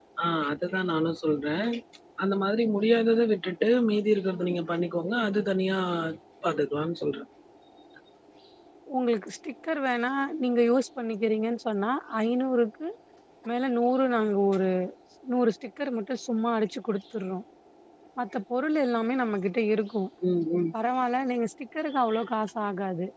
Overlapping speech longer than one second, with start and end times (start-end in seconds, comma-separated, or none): none